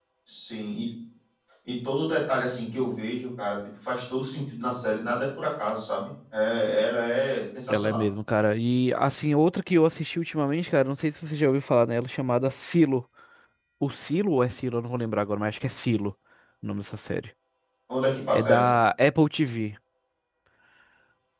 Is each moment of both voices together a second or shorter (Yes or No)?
Yes